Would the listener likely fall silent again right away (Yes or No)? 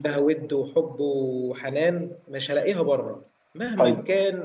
Yes